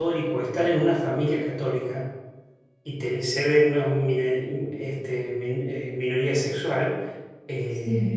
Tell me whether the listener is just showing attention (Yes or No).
Yes